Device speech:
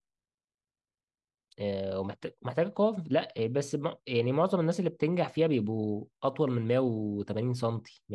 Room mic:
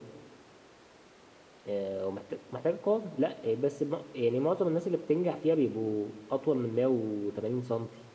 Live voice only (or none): none